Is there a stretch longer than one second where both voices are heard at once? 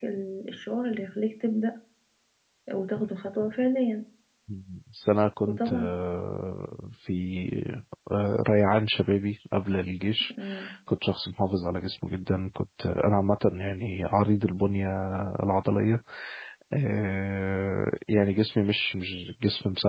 No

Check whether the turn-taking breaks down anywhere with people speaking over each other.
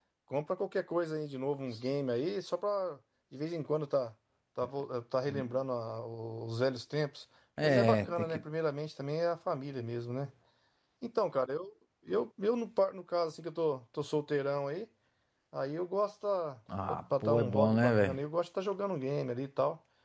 Yes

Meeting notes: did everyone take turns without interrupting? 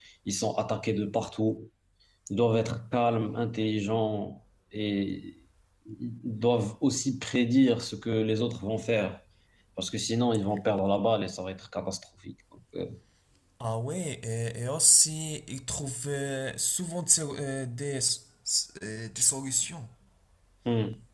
Yes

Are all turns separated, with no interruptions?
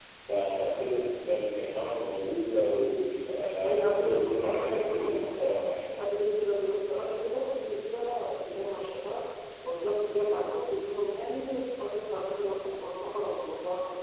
No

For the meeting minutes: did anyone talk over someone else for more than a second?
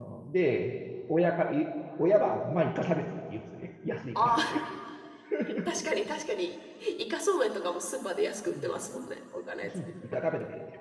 No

